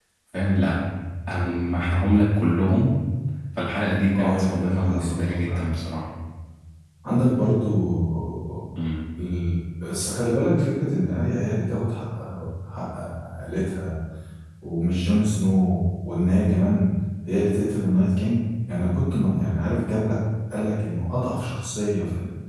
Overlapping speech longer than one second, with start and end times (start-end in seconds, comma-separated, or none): 4.2-5.6